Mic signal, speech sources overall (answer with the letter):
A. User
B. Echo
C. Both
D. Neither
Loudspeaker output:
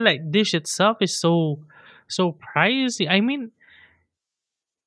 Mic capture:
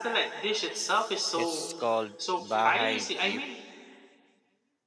C